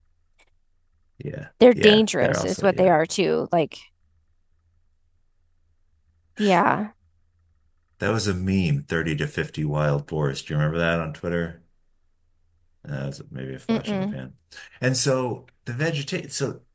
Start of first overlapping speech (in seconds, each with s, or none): 1.8 s